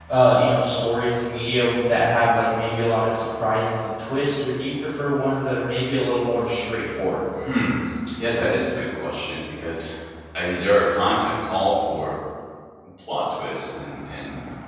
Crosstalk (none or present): none